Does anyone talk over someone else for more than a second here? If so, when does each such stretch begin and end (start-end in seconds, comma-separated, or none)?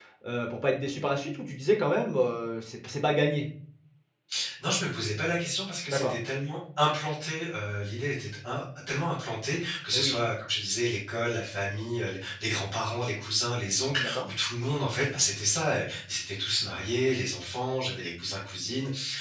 none